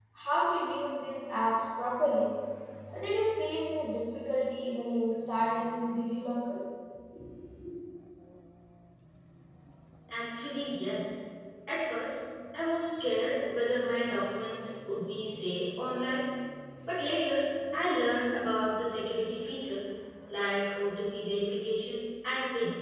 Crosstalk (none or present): none